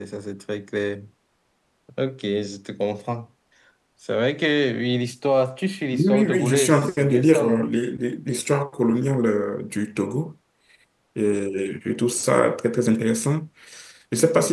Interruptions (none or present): present